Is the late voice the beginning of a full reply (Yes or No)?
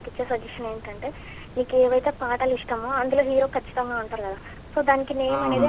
No